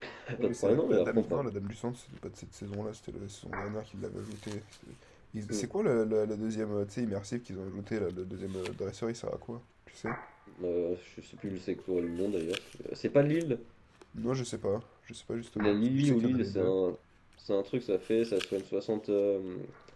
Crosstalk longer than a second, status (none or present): present